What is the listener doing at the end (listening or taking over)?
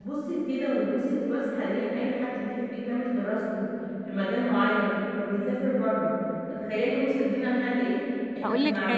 taking over